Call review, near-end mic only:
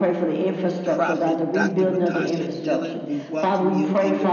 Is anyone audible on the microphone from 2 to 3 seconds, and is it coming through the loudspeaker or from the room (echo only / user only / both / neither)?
both